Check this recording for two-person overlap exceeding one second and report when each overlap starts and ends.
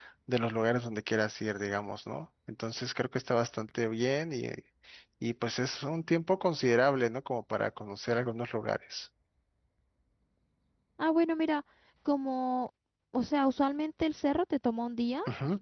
none

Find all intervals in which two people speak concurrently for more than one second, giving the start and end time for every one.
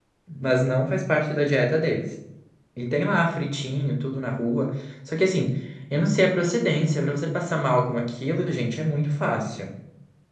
none

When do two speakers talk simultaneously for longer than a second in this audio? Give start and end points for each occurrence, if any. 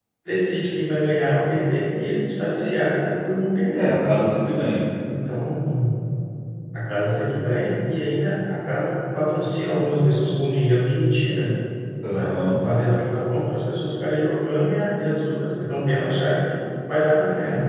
none

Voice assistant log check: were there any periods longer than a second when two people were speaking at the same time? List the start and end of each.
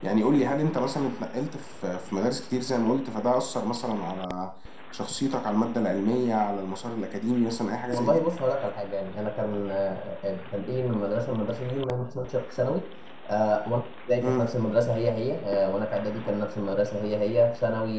none

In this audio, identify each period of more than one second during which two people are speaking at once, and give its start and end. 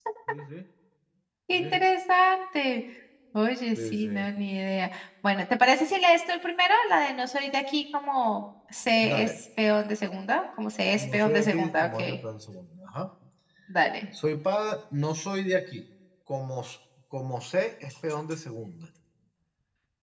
10.9-12.2

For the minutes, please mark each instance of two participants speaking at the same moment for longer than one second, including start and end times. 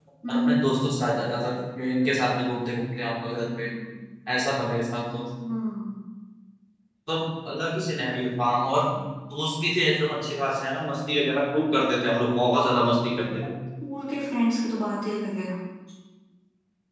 none

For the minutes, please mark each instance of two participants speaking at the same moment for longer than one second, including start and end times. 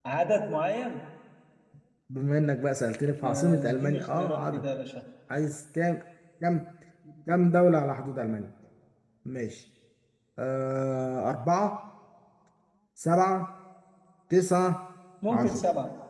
3.0-4.6

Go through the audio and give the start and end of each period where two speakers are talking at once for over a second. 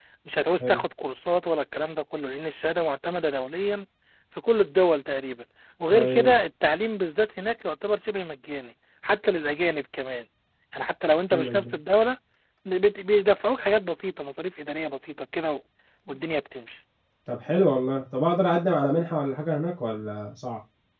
none

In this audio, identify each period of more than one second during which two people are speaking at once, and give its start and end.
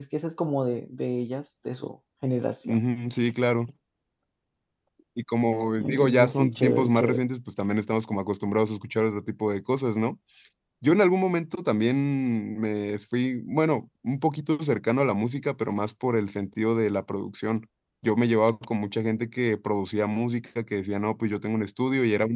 5.8-7.2

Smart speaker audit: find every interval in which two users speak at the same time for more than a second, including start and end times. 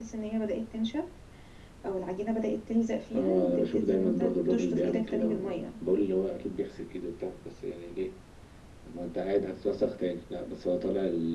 3.1-5.6

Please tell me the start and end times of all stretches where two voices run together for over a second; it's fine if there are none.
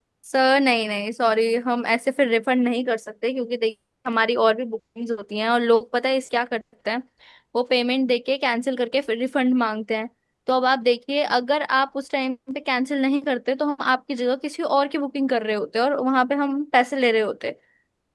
none

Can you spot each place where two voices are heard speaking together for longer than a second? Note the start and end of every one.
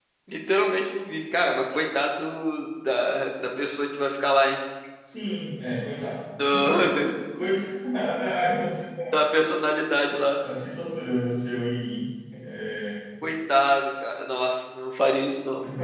none

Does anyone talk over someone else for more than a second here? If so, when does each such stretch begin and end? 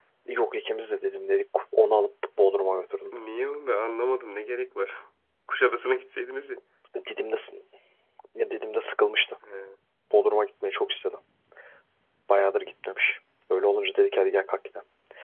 none

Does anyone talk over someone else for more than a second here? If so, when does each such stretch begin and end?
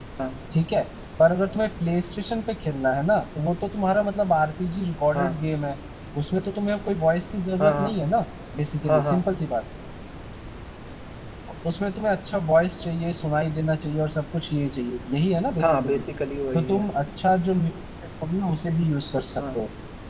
none

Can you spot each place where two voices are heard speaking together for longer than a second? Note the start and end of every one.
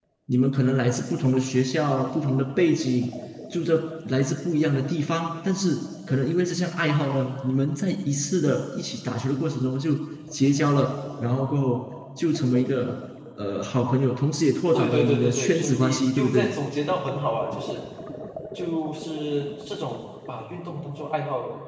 14.7-16.6

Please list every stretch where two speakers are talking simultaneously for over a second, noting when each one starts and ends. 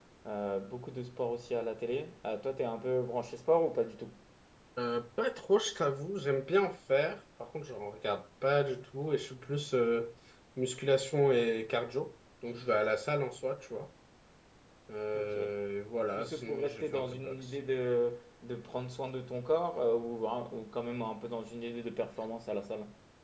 16.1-17.6

